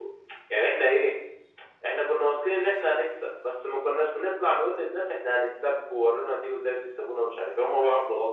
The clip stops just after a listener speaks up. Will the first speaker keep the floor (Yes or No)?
No